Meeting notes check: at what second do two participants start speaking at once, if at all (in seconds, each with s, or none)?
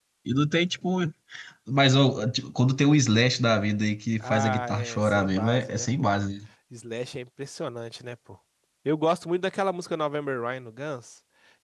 4.2 s